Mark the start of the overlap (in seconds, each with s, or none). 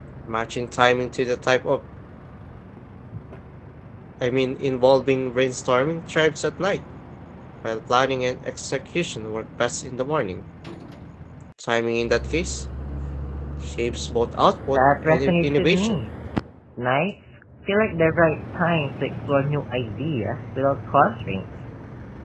14.7 s